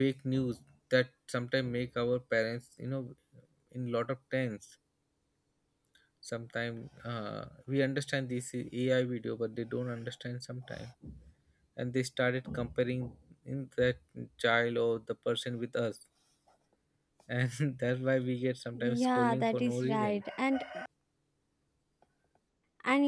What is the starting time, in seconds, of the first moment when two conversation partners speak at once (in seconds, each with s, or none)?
19.0 s